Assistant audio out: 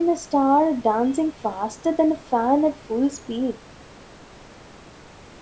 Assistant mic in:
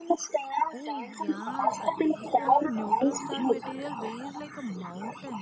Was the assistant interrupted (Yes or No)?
Yes